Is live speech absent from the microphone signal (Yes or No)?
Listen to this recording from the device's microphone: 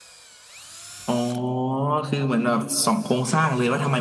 Yes